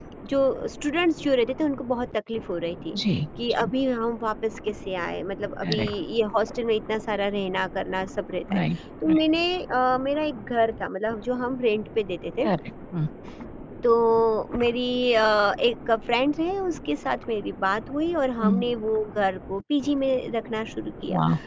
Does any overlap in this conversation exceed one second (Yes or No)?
No